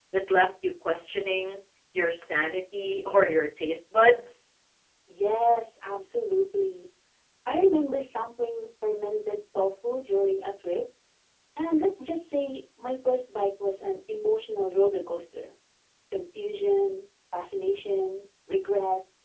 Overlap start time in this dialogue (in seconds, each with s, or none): none